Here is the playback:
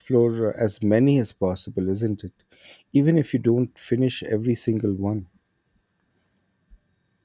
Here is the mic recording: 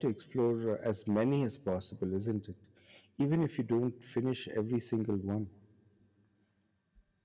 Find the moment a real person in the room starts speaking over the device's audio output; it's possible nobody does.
none

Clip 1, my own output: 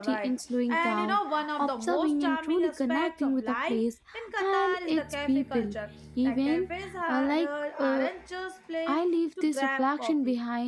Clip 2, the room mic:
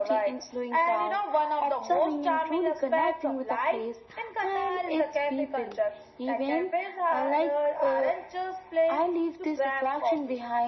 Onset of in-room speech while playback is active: none

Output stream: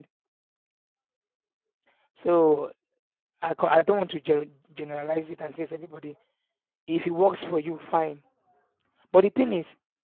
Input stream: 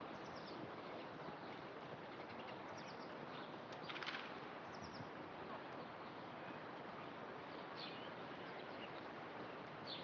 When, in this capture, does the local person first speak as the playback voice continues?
none

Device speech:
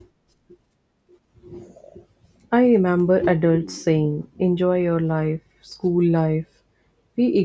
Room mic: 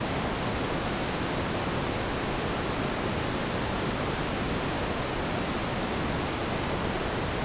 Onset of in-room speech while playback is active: none

